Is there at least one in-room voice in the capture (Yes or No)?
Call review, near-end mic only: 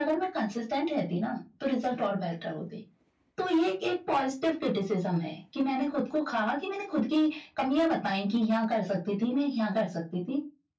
No